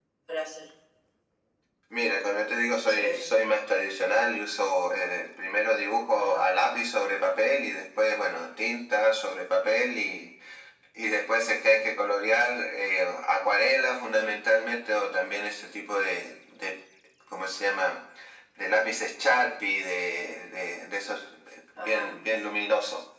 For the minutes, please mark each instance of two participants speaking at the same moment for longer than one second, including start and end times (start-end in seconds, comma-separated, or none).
none